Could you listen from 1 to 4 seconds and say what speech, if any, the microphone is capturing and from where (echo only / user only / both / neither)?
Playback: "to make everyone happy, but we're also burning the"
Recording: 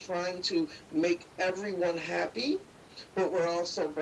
echo only